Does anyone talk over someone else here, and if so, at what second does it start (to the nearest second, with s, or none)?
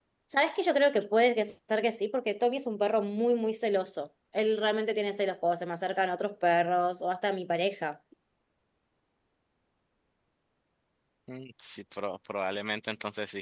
none